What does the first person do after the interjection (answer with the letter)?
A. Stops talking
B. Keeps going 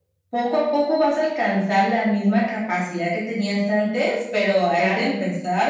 B